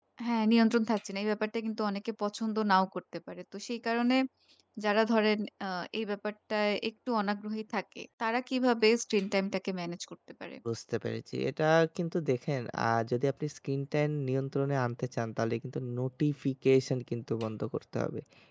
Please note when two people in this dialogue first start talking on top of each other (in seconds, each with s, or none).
none